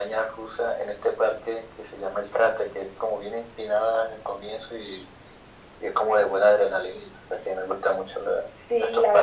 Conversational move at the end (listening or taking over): taking over